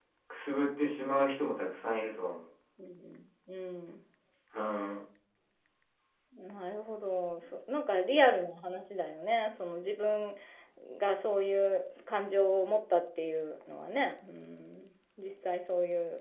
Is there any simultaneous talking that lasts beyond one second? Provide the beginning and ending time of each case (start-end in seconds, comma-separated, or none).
none